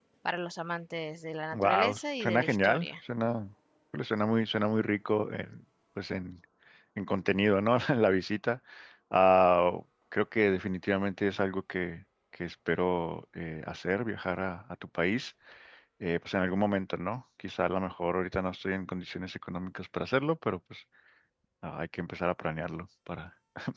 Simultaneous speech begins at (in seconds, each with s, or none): 1.5 s